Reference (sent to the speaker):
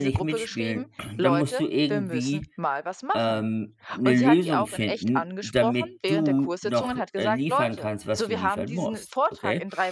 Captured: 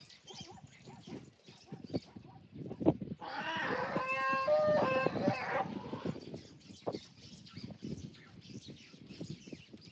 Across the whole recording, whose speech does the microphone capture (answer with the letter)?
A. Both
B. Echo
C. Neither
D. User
C